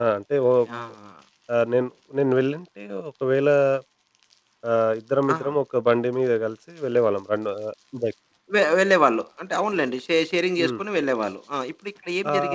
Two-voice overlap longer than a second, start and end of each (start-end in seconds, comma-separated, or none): none